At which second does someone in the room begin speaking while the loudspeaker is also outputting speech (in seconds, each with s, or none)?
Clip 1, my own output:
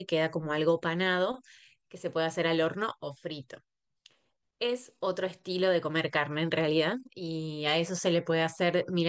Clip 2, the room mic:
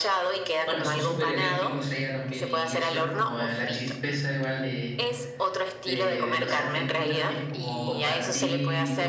0.6 s